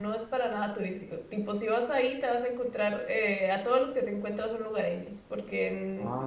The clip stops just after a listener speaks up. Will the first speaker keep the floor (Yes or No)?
Yes